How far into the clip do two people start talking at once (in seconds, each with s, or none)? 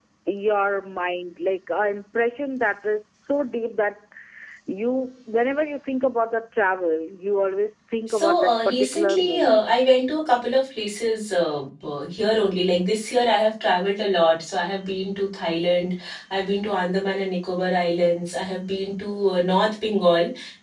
8.1 s